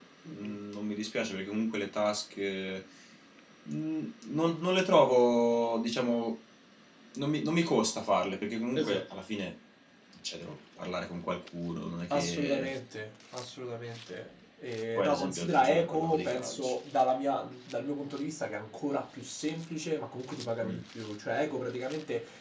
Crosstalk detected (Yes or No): Yes